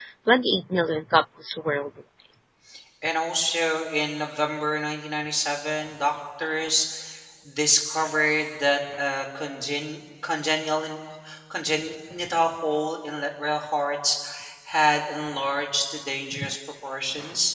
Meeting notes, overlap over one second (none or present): none